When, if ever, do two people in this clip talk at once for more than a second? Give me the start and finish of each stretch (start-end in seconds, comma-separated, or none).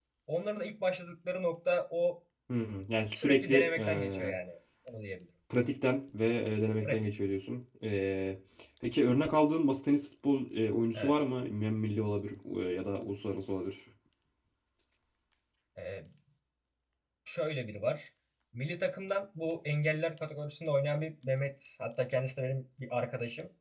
3.1-4.3